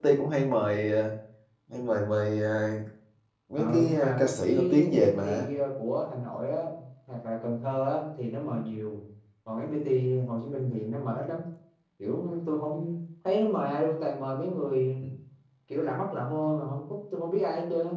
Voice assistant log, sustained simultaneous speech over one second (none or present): present